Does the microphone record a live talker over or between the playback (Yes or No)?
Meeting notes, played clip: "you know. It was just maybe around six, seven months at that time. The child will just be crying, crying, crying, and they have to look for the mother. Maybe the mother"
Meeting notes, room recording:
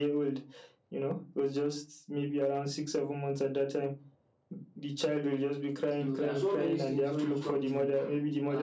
Yes